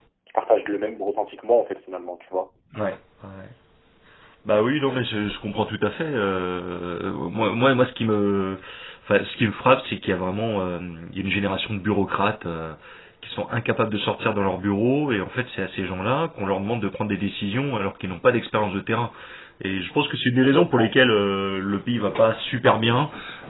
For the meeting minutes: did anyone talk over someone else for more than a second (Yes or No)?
No